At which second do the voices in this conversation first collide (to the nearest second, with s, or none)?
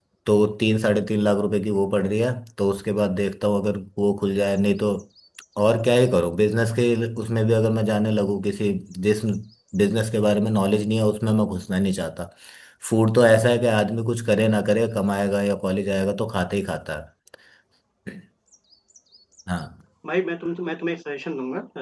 none